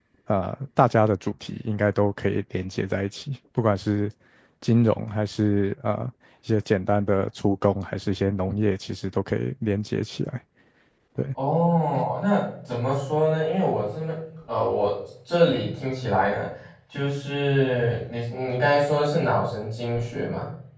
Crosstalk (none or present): none